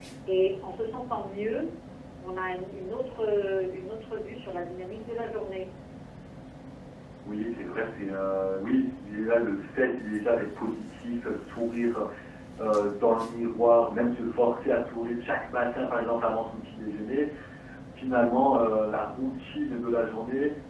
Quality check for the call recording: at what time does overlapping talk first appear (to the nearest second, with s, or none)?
none